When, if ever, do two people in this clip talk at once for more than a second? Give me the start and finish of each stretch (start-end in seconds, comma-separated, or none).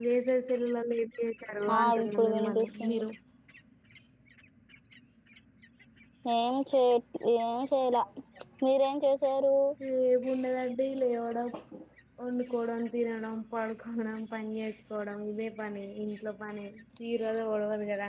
1.8-3.0